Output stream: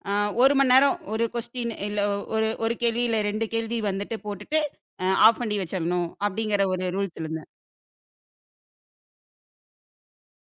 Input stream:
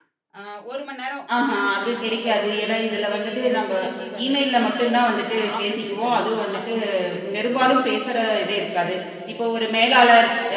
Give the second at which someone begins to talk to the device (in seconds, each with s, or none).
1.4 s